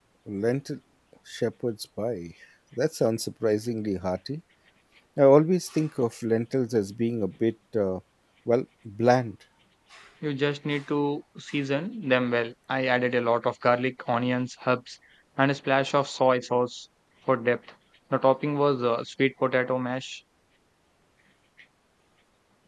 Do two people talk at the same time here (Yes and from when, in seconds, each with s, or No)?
No